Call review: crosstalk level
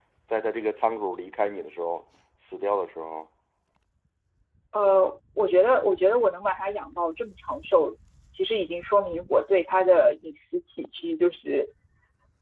none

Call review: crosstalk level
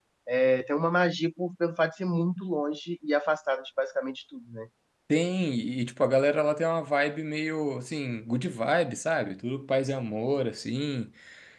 none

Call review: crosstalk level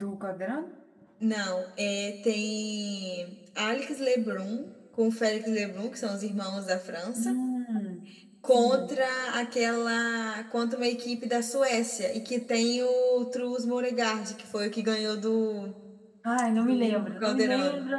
present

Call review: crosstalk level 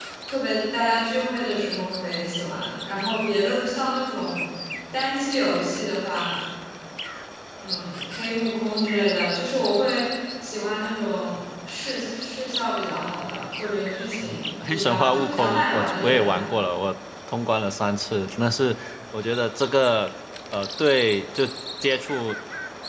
present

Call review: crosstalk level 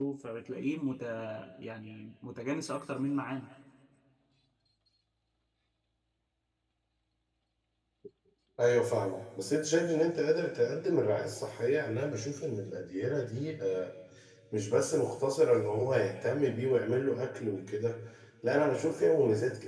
none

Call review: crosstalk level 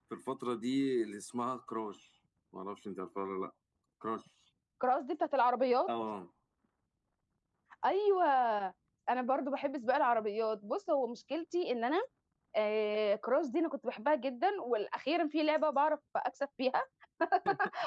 none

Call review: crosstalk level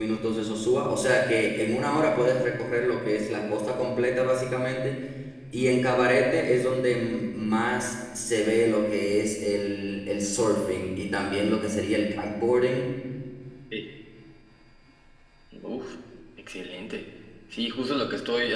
none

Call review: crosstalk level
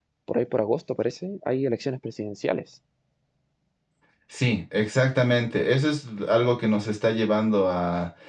none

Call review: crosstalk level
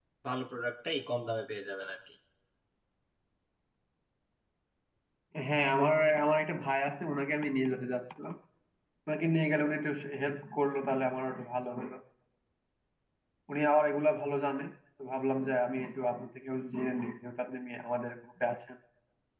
none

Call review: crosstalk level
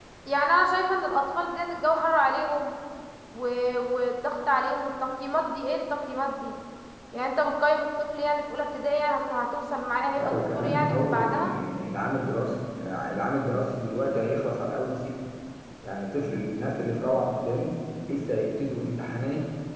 present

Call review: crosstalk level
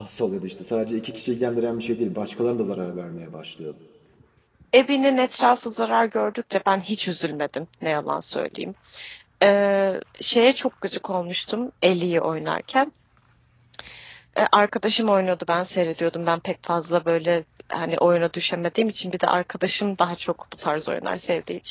none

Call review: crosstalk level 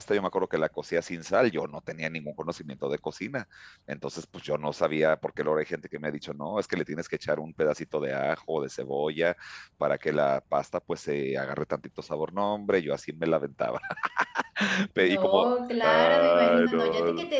present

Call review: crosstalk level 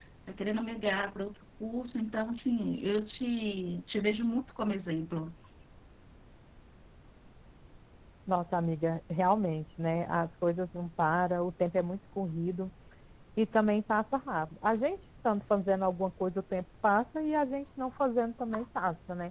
none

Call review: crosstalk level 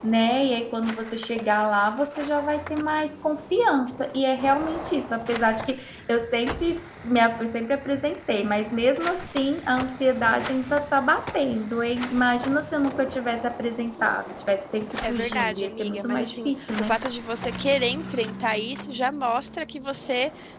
present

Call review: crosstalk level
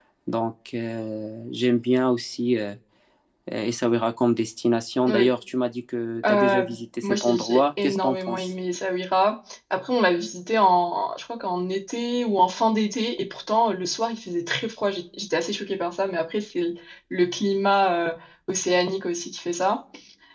present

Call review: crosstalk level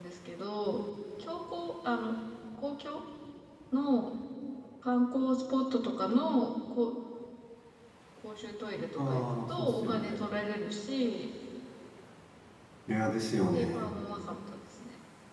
present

